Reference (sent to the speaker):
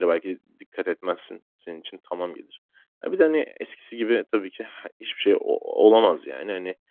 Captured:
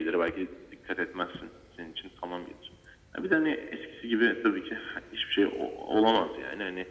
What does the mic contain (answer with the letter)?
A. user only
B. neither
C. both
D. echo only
D